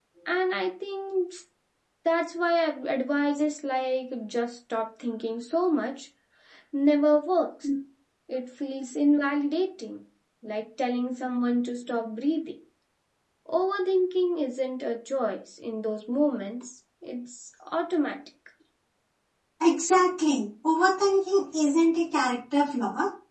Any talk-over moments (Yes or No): No